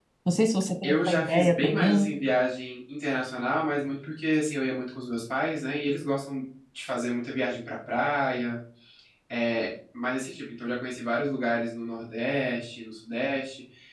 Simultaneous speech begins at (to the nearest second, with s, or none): 1 s